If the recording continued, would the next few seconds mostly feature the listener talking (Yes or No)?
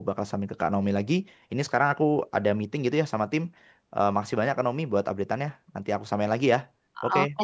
Yes